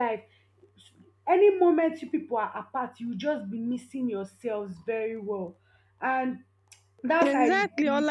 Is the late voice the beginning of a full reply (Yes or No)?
Yes